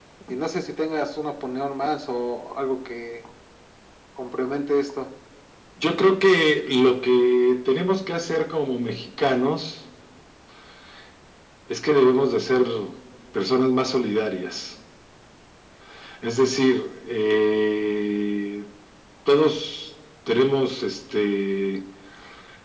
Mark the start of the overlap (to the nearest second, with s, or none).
none